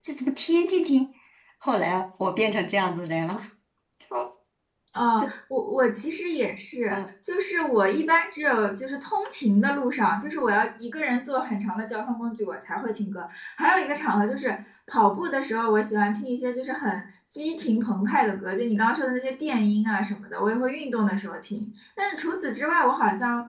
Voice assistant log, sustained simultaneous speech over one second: none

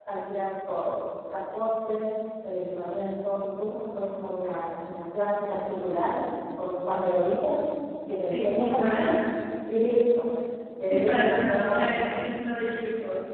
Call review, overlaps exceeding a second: present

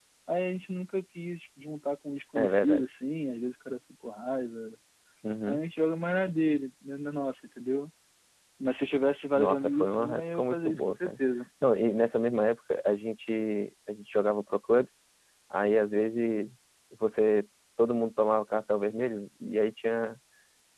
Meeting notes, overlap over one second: present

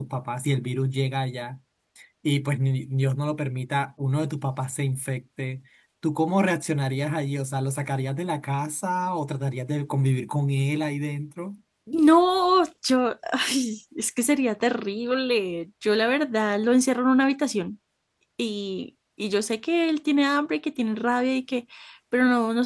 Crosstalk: none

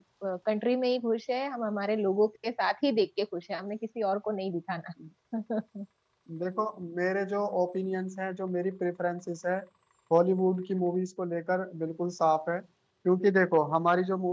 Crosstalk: none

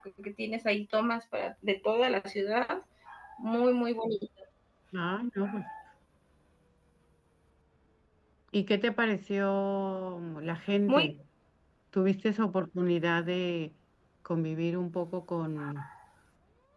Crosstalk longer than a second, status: none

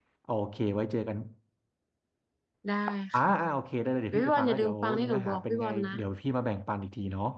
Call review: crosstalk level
present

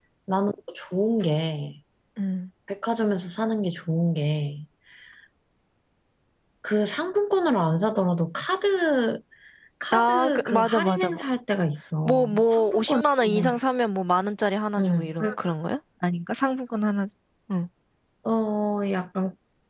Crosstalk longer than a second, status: present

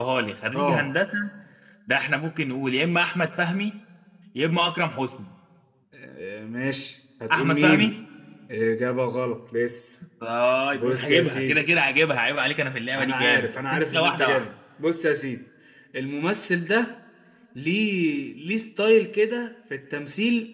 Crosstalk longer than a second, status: present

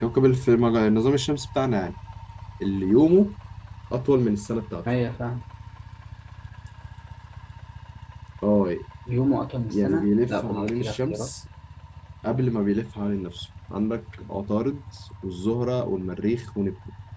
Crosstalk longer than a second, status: present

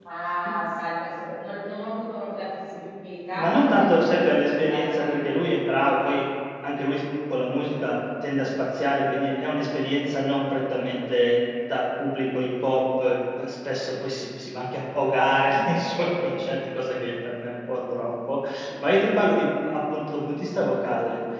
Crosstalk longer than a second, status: present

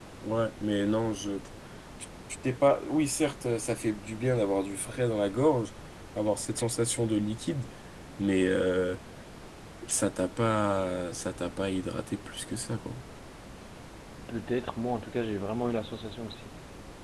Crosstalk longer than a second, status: none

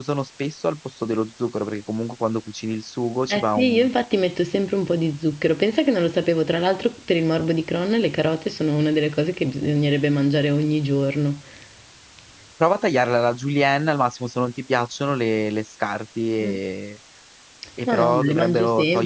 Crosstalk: present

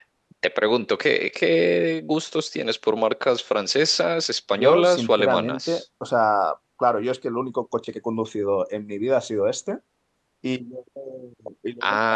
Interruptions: present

